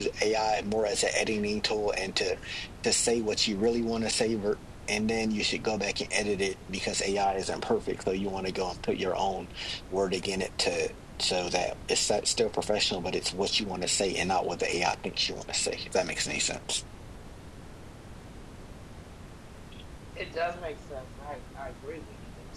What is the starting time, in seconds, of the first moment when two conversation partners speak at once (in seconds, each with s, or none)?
none